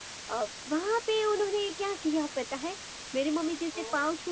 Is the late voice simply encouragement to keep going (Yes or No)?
Yes